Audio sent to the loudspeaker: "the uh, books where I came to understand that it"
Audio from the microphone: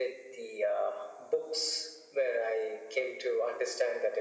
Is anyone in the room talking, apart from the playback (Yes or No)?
No